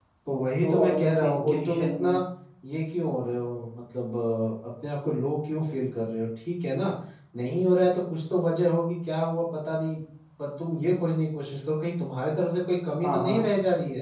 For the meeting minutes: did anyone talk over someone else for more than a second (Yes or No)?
Yes